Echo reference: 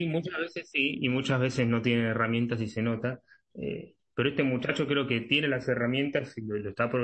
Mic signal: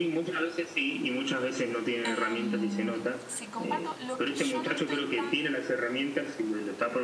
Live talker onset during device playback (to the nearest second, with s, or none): 2 s